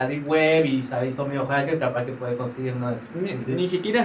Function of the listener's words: taking over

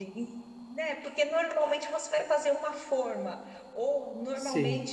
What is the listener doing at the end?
listening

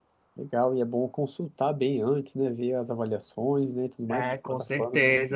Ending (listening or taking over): taking over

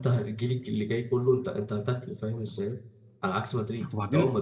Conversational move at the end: listening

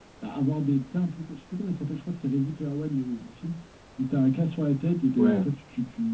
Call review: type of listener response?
listening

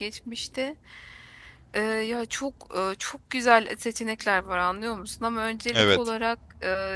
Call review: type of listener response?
listening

